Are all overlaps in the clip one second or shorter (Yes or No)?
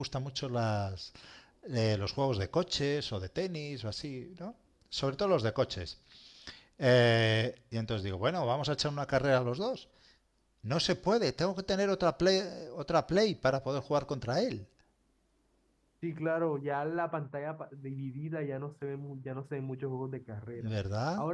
Yes